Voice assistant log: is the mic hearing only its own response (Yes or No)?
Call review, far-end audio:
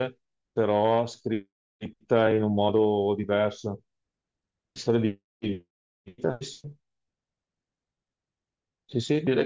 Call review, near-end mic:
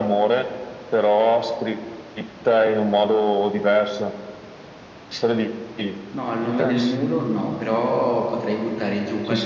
No